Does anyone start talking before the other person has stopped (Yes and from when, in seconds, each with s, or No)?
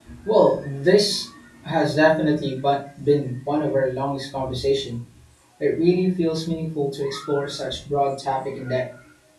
No